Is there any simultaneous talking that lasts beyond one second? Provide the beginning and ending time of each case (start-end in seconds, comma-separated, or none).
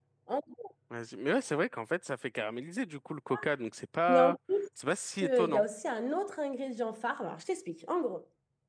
none